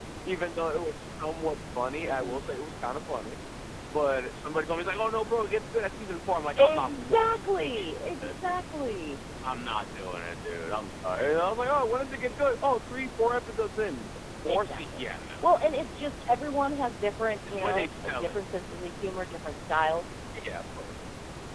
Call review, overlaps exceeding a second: present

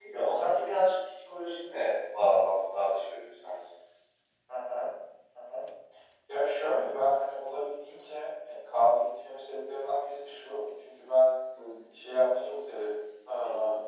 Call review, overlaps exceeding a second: none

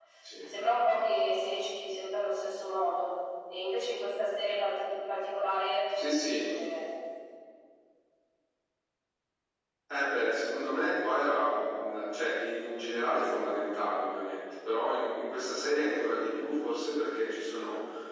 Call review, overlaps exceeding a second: none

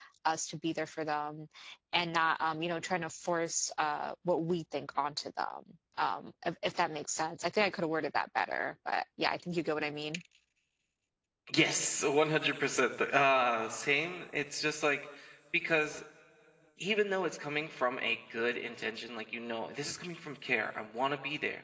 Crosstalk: none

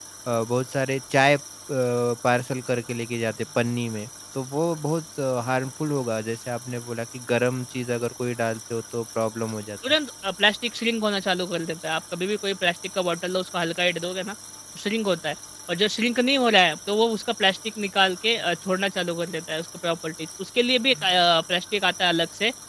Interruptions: none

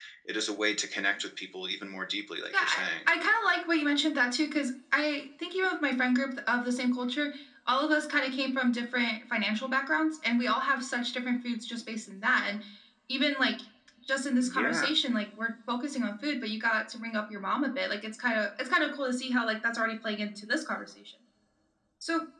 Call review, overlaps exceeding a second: none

